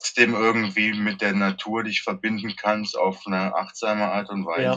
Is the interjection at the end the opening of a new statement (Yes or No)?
Yes